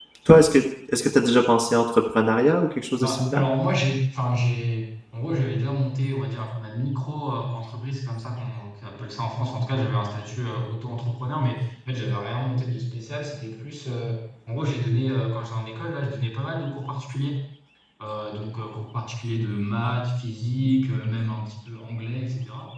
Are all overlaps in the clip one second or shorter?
Yes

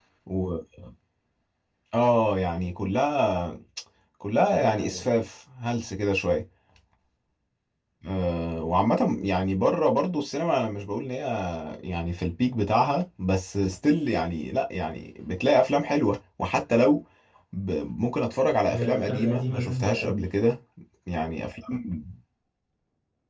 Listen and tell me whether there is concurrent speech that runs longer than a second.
Yes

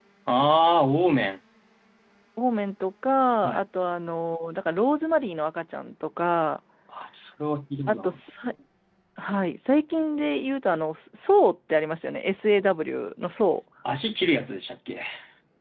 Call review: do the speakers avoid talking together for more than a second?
Yes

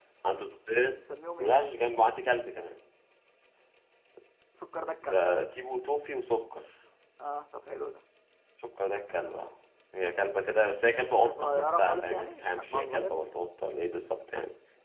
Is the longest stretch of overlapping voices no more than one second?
No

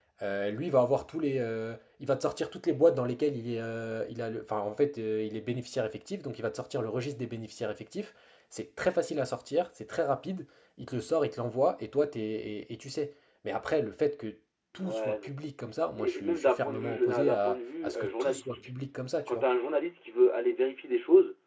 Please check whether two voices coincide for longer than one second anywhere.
Yes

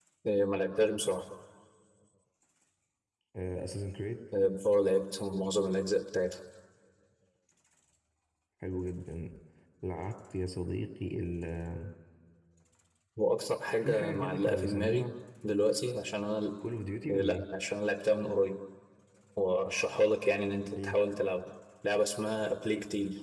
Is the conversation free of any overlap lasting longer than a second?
No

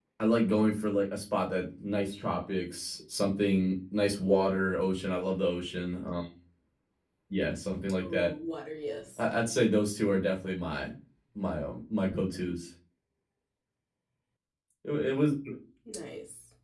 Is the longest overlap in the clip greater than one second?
No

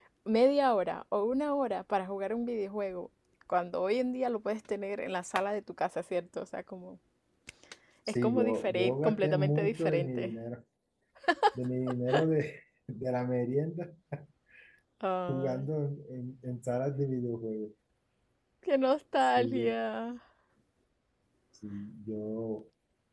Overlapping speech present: Yes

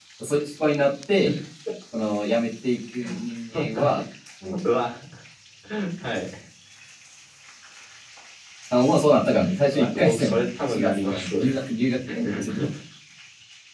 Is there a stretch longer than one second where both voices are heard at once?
Yes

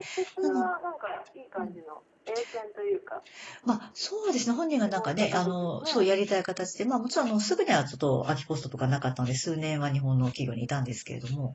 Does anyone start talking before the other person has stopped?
Yes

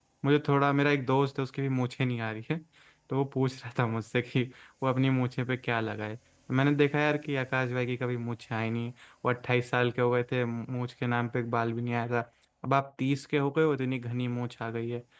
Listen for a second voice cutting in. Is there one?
No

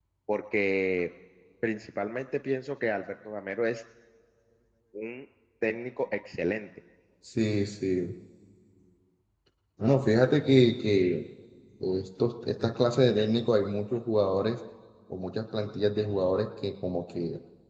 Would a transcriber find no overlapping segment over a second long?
Yes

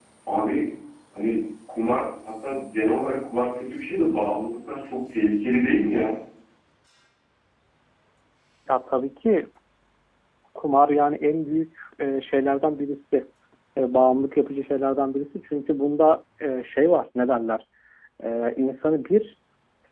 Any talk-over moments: No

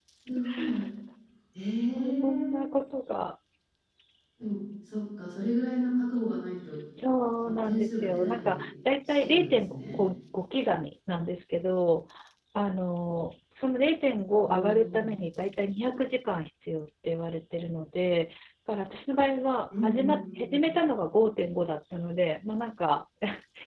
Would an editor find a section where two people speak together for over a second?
Yes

